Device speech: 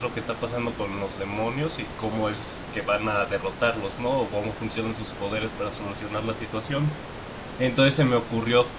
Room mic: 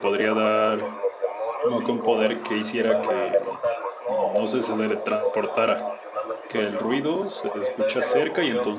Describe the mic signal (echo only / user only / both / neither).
both